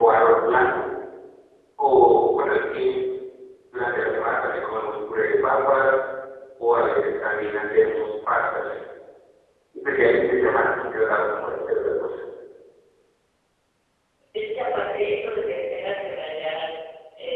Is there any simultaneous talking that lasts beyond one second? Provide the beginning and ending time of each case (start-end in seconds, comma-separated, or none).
none